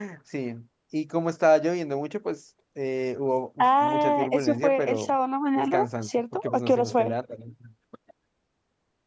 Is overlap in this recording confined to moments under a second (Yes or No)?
No